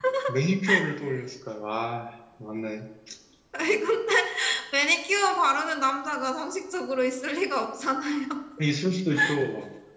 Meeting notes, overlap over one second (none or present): none